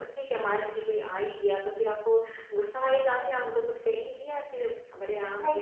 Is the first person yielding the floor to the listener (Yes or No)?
Yes